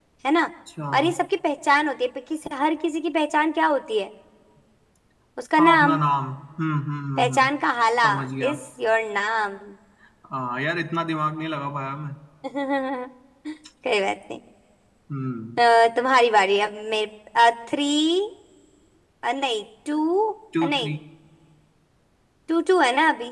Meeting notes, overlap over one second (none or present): none